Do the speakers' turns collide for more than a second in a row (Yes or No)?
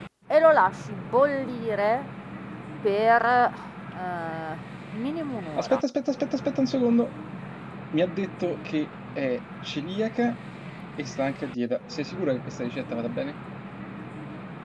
No